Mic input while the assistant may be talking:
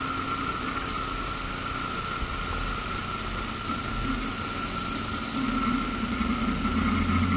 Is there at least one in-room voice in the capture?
No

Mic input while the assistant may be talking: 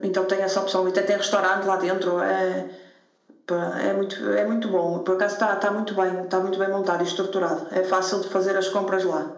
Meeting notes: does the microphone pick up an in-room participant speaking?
No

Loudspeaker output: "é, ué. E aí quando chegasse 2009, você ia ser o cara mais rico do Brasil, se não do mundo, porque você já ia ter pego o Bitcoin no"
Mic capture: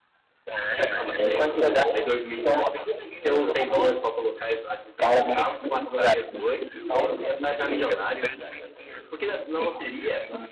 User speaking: Yes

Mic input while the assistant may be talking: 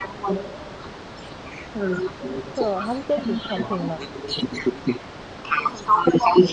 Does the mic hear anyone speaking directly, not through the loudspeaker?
Yes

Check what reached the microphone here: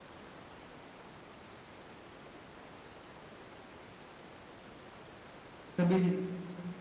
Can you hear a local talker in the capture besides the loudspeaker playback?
Yes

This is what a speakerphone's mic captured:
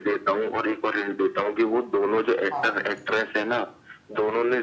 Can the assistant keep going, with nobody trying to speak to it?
No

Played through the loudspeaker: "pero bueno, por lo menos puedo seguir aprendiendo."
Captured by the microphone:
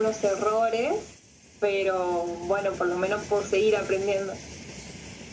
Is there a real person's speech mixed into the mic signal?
No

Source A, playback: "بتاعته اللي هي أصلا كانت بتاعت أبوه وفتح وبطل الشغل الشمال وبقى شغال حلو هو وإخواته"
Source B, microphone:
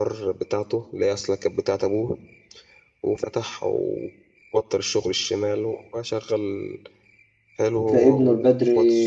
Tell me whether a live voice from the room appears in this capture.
Yes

